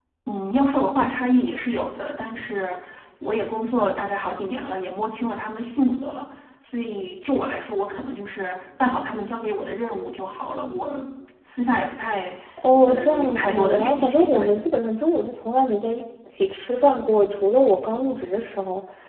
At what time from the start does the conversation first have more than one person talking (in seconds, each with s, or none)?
12.9 s